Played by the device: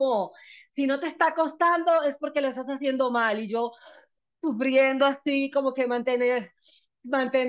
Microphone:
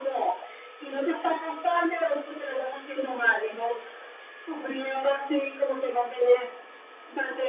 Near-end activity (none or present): none